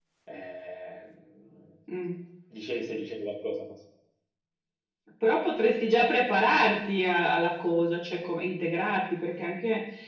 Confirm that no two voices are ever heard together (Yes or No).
Yes